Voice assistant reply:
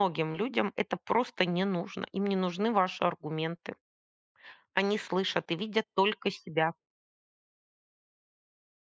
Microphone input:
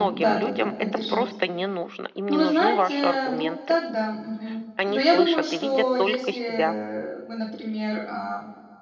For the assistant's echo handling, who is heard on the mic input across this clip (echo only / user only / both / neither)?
both